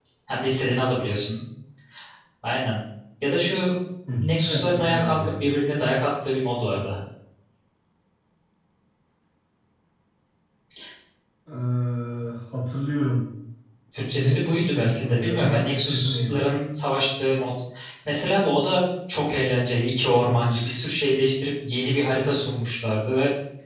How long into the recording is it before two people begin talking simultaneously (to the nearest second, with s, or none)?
4 s